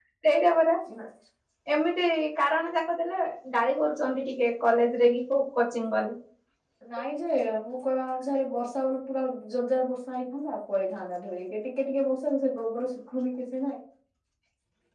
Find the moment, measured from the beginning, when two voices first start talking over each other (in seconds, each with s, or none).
none